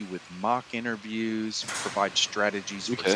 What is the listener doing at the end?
listening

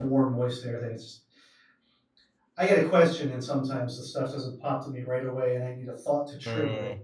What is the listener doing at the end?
taking over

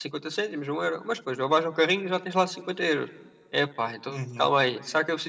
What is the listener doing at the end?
listening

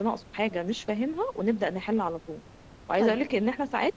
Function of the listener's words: listening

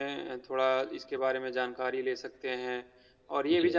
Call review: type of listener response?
listening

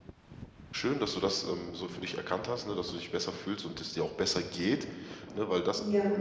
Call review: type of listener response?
listening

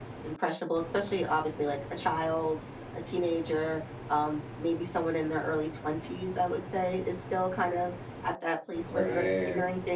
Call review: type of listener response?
listening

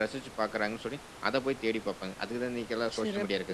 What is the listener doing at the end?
taking over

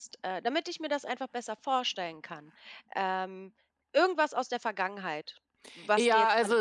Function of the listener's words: taking over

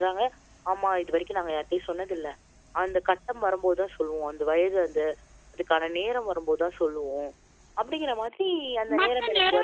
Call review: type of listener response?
taking over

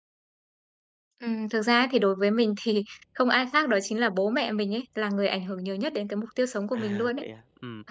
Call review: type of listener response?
taking over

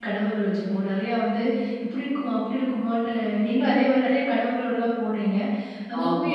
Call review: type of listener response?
listening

